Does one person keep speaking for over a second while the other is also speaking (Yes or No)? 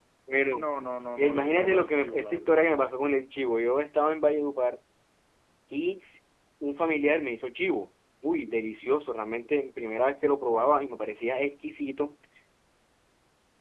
Yes